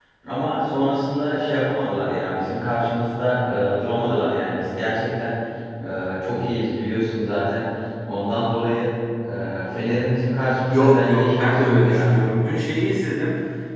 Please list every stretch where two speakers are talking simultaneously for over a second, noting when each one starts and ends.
10.7-12.1

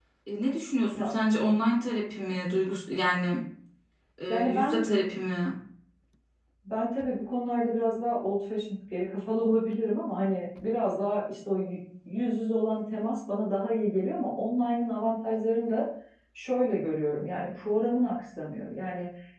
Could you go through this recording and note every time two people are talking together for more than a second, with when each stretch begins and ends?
none

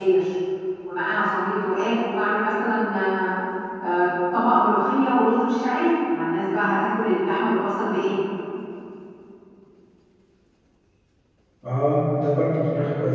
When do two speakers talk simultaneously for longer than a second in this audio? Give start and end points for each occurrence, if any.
none

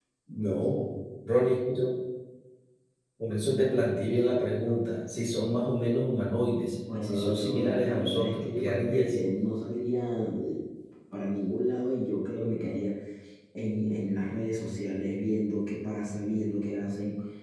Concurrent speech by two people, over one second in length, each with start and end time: 7.0-9.2

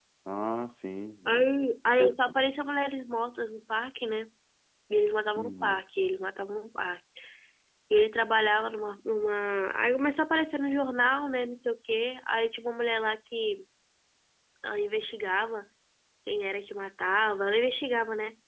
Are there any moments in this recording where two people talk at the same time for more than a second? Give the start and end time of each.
none

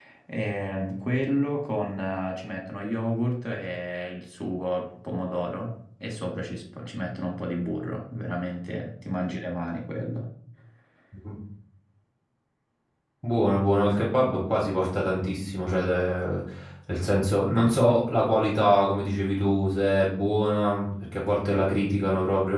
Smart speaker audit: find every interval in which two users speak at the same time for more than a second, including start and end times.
none

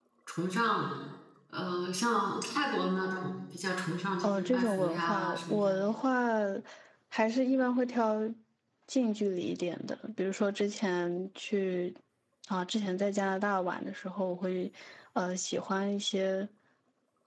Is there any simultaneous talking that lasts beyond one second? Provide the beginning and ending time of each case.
4.2-5.8

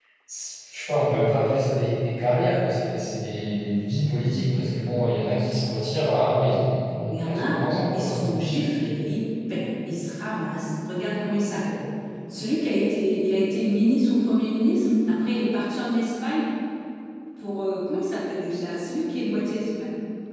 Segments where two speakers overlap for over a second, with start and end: none

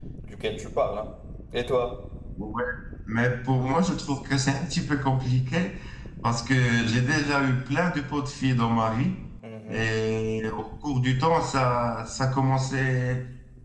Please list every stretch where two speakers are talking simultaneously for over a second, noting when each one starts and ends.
none

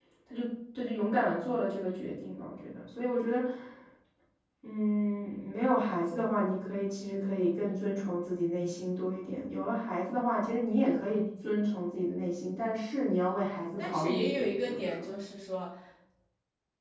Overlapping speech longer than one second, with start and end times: 13.8-15.1

